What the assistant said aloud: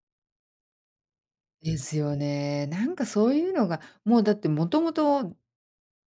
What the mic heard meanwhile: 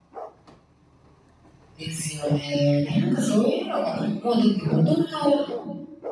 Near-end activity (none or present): none